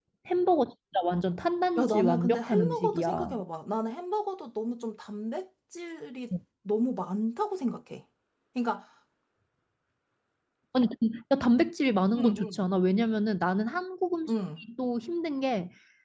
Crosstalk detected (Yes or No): Yes